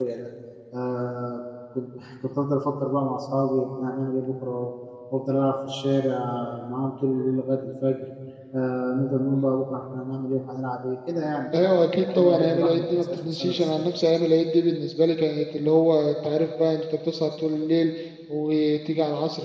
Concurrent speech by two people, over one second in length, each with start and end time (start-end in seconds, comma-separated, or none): 11.6-13.9